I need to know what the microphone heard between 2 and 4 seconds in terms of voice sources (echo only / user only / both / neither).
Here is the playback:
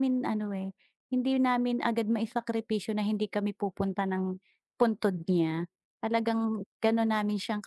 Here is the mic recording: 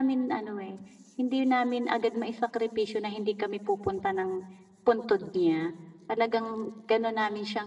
echo only